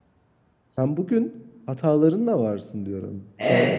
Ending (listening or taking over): taking over